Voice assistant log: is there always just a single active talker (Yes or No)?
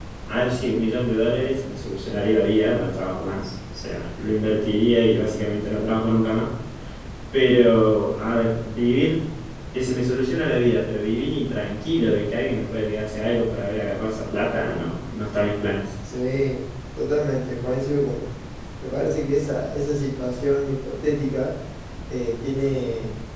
Yes